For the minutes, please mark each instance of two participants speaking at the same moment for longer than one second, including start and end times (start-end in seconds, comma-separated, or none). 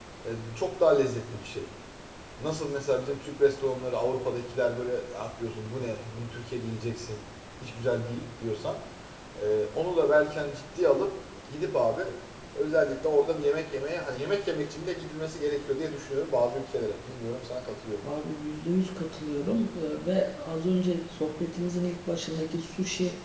none